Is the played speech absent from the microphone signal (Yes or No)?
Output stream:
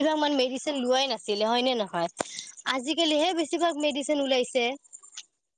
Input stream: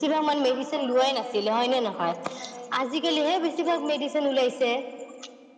No